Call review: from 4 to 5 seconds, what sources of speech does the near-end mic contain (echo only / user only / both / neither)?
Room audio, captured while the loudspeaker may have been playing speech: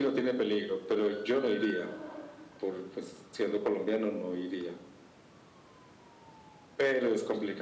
echo only